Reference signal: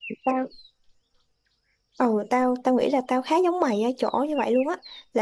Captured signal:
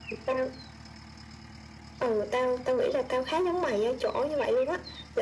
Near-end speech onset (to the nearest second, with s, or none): none